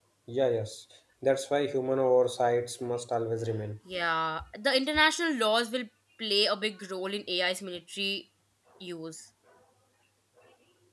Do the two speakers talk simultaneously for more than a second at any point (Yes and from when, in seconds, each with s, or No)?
No